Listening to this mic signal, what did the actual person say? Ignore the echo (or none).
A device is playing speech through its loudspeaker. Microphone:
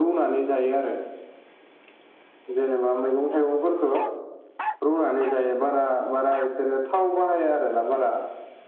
none